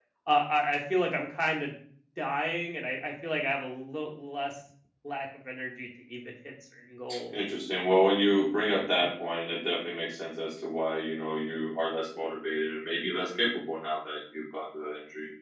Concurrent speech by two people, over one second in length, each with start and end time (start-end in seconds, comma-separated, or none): none